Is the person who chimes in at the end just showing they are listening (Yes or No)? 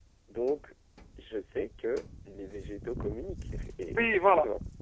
No